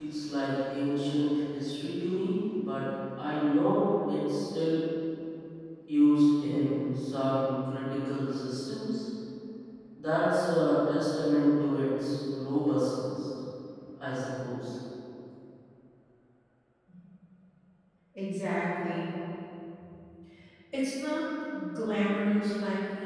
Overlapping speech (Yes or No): No